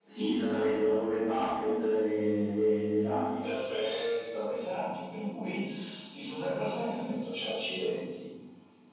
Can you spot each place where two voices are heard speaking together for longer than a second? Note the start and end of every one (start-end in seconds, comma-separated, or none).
none